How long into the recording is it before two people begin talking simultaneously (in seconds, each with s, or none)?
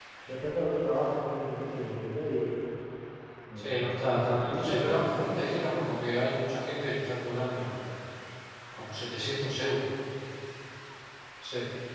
3.6 s